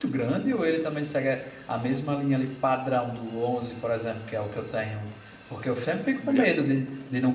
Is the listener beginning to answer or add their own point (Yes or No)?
No